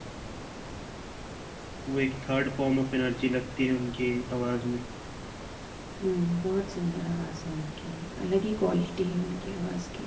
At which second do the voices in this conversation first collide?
none

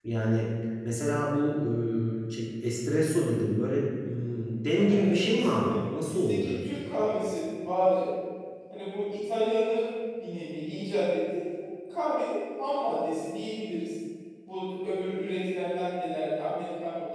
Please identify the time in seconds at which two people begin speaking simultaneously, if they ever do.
4.7 s

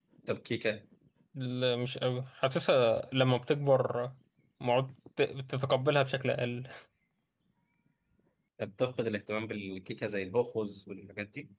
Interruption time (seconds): none

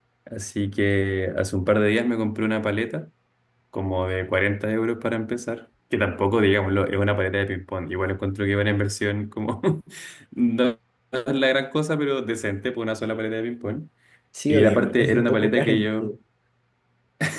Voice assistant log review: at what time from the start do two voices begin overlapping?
14.5 s

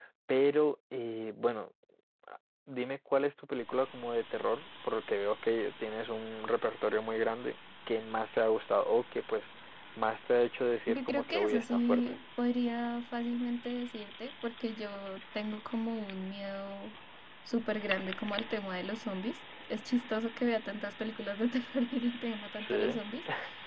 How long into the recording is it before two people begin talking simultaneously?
10.9 s

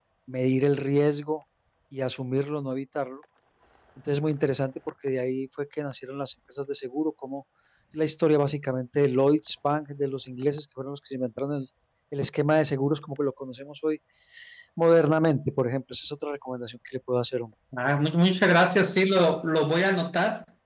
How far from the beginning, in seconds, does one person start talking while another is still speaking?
none

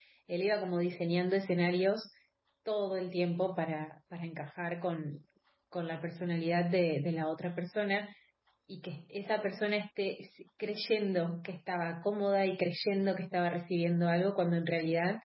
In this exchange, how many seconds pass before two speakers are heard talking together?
none

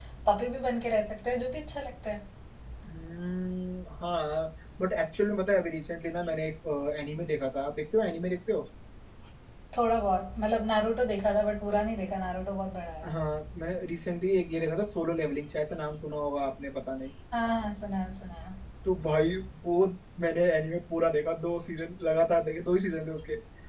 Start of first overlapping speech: none

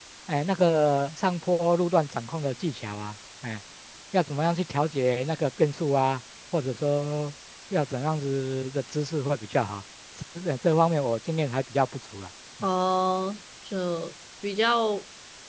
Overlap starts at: none

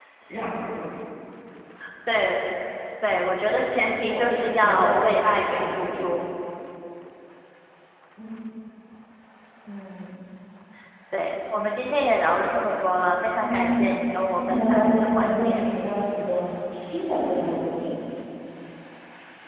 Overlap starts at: 4.0 s

